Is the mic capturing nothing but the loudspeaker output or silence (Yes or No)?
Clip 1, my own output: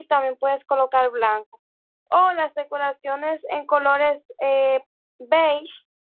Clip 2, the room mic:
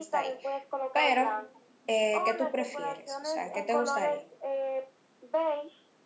No